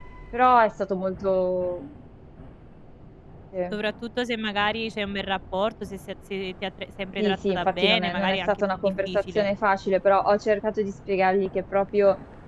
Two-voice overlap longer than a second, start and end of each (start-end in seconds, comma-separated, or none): 7.2-9.5